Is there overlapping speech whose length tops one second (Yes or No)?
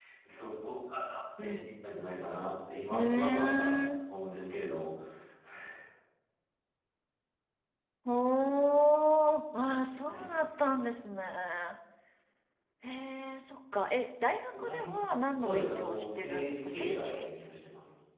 Yes